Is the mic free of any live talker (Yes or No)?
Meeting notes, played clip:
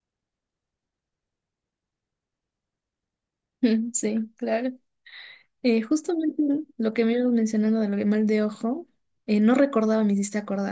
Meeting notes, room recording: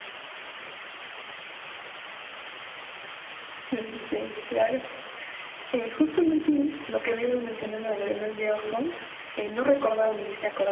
Yes